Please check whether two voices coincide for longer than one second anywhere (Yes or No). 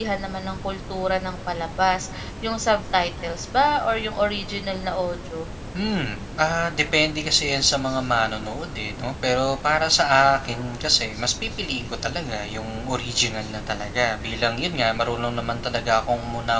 No